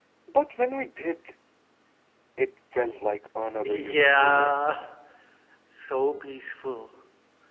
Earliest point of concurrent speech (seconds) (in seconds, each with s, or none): 3.6 s